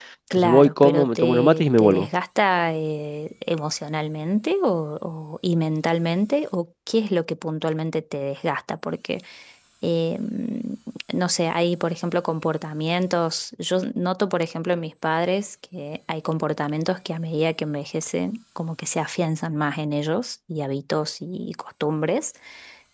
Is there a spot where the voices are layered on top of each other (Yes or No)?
Yes